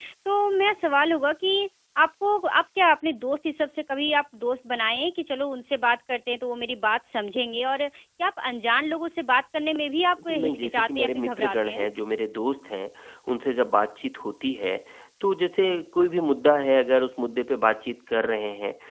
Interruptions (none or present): present